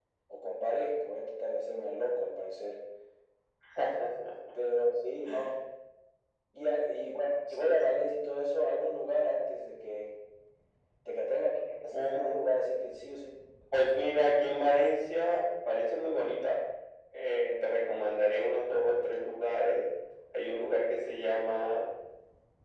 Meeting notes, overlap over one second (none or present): none